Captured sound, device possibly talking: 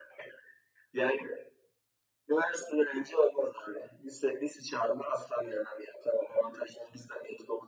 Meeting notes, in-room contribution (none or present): none